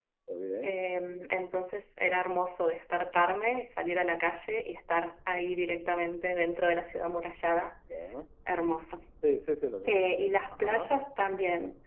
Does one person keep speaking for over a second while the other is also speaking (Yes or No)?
No